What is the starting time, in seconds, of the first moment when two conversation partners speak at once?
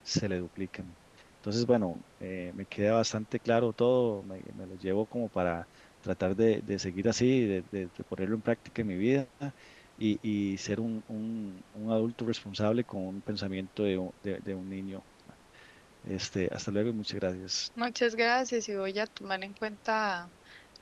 none

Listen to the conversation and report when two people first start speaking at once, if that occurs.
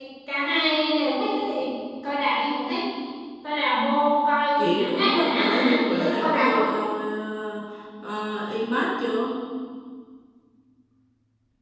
4.6 s

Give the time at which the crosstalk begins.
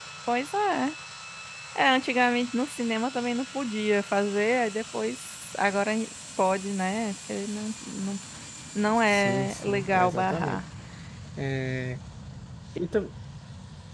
9.1 s

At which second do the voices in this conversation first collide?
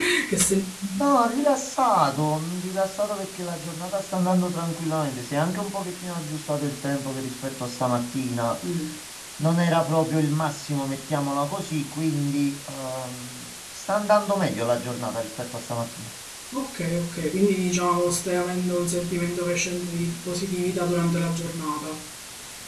none

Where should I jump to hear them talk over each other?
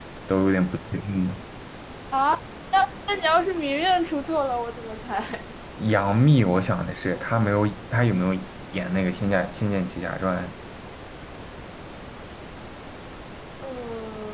none

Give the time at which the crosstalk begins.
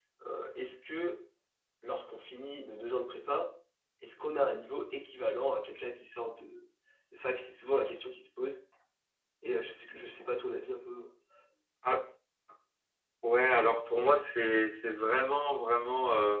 none

